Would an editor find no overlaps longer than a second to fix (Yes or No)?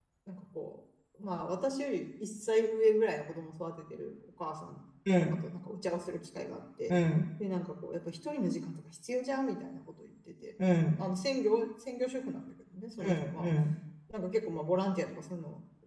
Yes